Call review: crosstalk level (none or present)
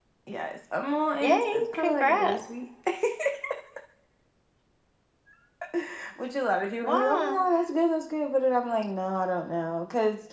present